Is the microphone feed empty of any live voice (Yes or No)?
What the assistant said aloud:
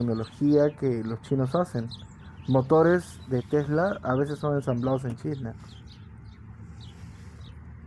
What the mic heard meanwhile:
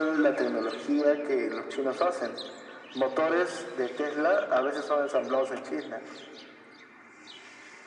Yes